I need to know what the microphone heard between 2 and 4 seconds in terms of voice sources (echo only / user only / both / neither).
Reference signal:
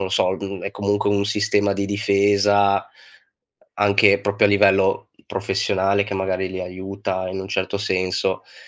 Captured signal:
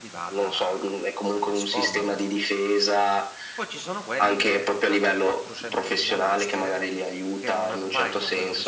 both